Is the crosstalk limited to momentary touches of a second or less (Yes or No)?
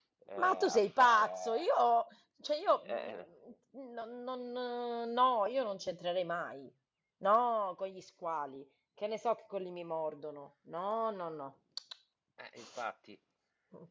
No